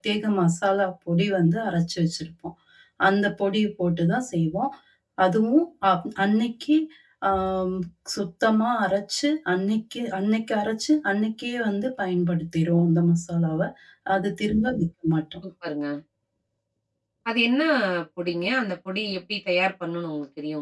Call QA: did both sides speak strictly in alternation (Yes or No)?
Yes